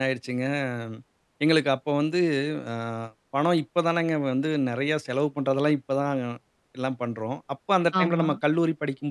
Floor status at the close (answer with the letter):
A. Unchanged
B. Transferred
A